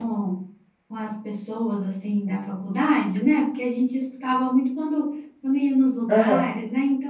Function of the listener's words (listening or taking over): listening